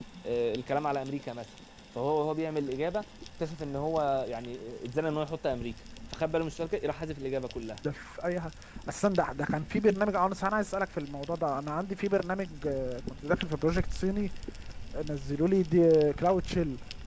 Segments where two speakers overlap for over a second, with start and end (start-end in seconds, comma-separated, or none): none